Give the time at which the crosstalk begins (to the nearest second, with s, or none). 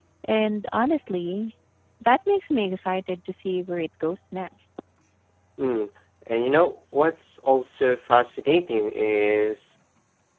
none